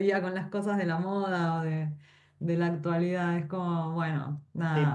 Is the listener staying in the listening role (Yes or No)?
No